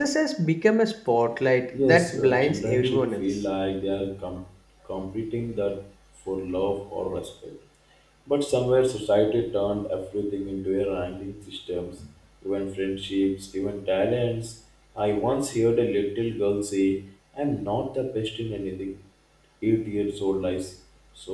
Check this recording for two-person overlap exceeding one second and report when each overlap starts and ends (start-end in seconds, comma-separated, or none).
1.8-3.2